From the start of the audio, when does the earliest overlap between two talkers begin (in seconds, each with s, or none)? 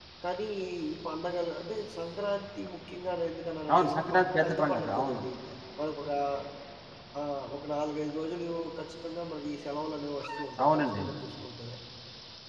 3.7 s